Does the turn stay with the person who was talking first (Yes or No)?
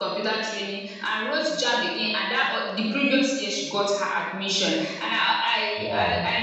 Yes